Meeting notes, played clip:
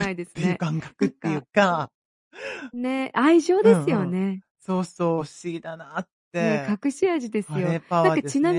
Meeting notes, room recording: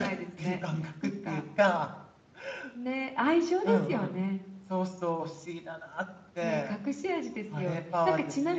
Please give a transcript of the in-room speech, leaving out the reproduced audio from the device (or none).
none